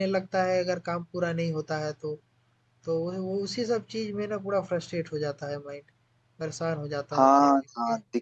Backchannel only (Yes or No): No